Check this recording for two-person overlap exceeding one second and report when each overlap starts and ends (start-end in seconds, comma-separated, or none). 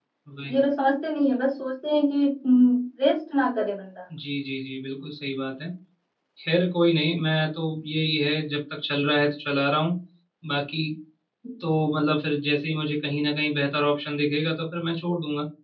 none